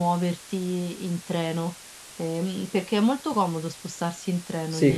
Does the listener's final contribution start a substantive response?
Yes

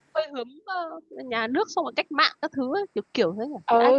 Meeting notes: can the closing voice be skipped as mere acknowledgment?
No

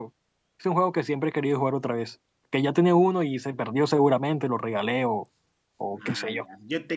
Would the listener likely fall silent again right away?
No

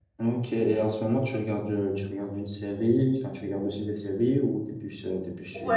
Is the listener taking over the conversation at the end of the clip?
Yes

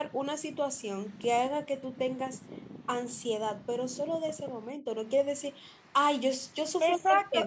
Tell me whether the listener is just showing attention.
No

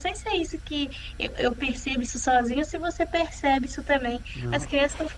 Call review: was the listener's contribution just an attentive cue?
Yes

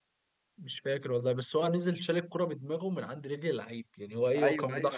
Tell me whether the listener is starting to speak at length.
Yes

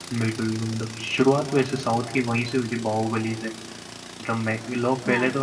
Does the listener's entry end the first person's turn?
No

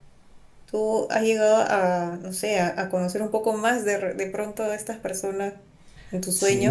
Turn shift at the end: Yes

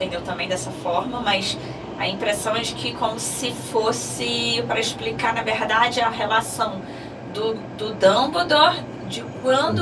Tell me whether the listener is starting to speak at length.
No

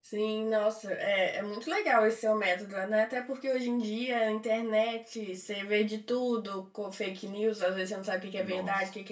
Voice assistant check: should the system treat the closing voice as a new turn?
No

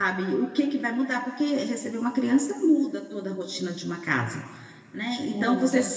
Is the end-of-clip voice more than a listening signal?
No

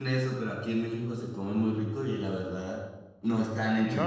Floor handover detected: Yes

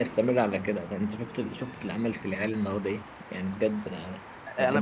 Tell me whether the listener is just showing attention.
No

